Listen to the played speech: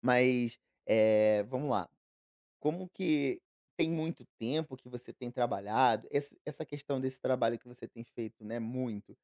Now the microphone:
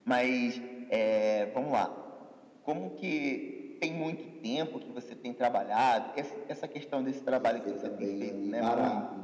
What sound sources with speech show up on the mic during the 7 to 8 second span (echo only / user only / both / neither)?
both